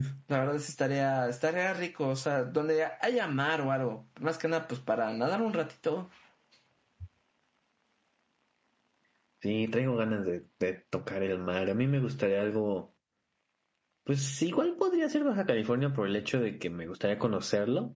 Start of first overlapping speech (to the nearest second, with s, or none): none